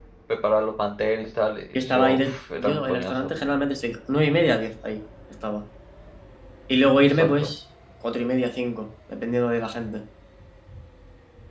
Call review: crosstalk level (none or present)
present